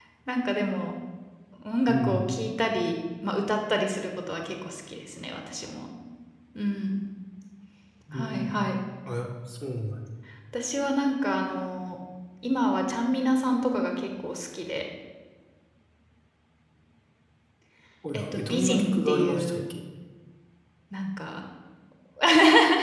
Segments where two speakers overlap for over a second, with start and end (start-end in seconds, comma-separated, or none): 18.1-19.6